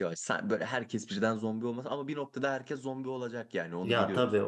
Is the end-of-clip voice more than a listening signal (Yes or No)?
Yes